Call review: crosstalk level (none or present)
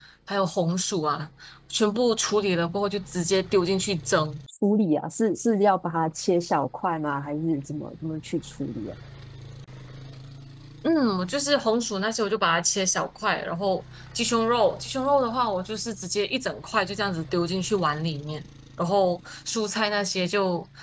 none